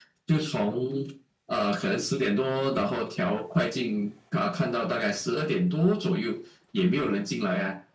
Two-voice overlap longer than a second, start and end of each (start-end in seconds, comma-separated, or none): none